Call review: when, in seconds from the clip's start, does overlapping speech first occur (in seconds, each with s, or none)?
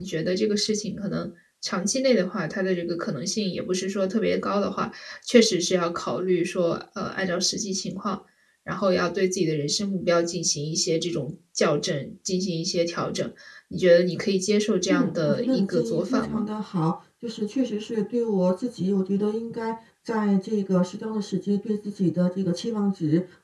14.9 s